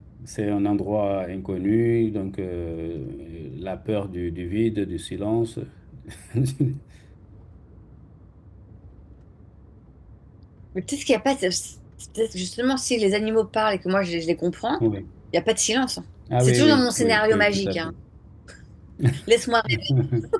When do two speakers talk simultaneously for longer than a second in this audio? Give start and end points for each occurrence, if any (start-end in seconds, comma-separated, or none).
16.4-17.9